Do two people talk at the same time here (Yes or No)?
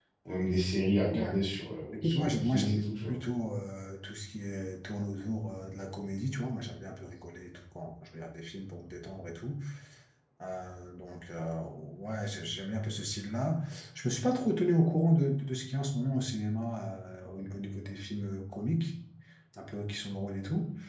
Yes